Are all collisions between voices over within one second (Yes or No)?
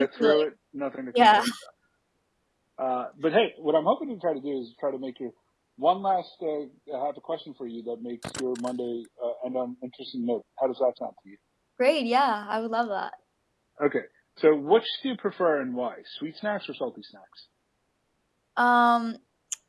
Yes